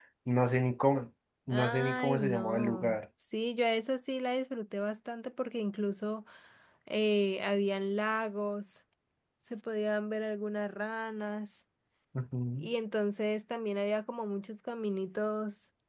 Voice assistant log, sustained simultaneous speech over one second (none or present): present